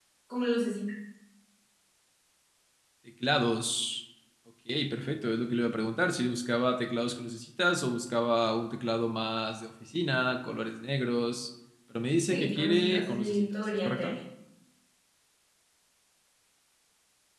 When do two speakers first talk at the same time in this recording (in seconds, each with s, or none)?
12.3 s